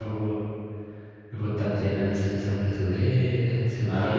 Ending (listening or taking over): taking over